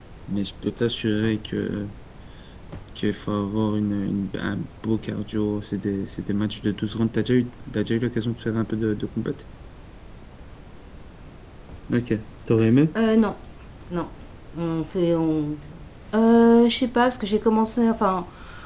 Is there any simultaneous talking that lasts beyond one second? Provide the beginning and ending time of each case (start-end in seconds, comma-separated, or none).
none